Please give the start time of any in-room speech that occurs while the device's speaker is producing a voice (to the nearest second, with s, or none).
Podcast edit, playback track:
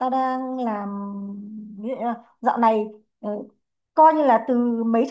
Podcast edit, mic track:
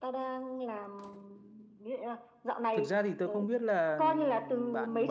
3 s